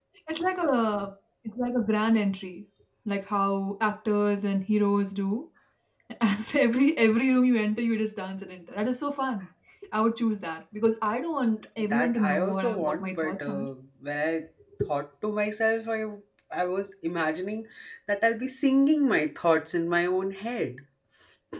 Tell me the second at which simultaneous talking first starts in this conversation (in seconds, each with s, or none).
11.9 s